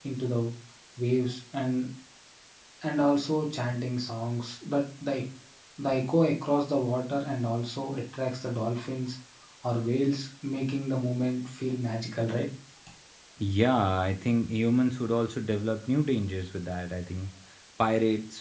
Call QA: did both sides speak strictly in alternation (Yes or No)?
Yes